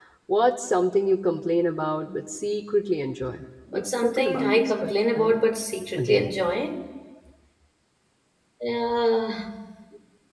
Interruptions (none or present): present